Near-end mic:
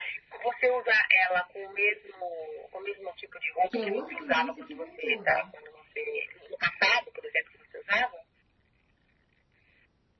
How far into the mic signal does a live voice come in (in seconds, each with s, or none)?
3.7 s